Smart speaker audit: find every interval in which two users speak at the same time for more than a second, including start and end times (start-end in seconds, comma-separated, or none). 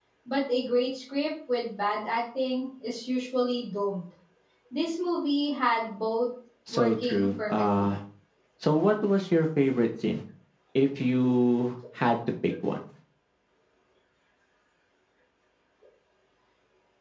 6.7-8.0